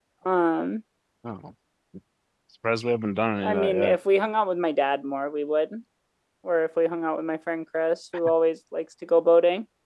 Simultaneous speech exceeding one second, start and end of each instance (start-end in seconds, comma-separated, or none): none